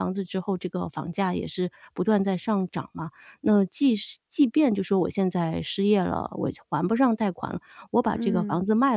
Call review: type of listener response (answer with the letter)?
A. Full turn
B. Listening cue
B